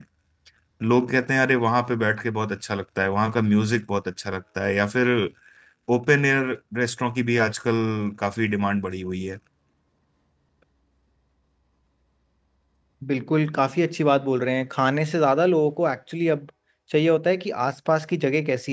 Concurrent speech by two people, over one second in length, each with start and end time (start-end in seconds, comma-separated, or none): none